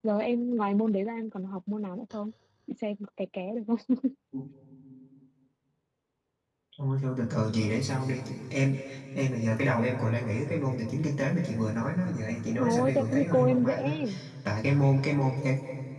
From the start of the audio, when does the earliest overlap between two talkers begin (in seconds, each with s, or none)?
12.6 s